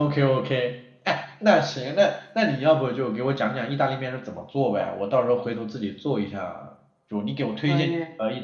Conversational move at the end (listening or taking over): listening